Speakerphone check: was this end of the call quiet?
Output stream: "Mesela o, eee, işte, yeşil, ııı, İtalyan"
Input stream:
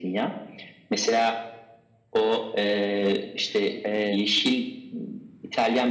No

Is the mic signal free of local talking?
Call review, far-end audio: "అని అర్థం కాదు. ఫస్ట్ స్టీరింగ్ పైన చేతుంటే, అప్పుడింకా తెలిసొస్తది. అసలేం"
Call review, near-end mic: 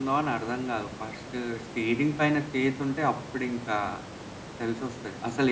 Yes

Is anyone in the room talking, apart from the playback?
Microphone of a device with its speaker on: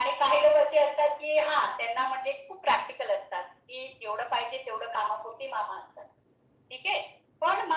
No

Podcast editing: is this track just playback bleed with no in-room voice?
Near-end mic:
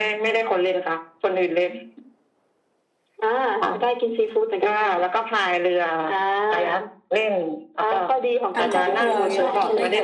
No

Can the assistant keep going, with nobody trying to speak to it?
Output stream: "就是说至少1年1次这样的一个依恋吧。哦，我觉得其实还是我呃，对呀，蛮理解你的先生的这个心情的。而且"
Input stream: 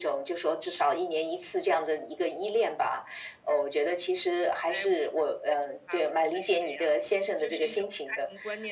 No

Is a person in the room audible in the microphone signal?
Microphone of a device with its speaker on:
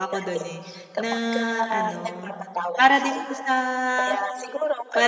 Yes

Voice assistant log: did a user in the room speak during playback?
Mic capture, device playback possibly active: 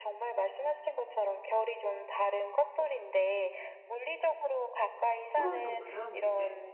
Yes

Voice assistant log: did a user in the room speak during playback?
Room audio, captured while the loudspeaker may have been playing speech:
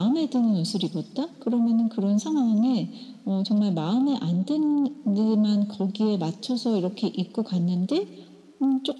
No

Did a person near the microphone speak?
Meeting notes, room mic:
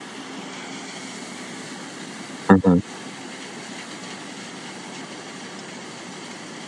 Yes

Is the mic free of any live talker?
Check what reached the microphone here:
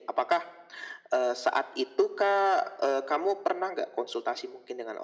Yes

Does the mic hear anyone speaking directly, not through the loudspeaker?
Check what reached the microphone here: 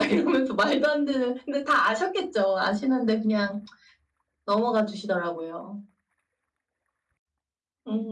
Yes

